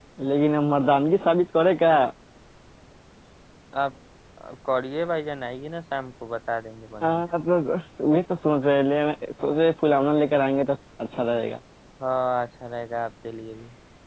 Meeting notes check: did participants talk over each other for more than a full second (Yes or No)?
No